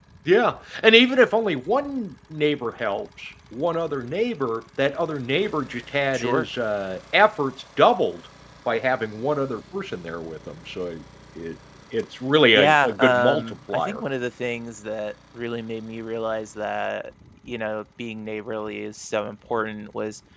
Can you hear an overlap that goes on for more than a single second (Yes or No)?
Yes